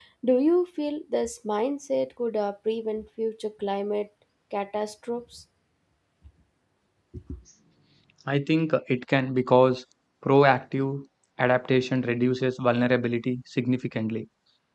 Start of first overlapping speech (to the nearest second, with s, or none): none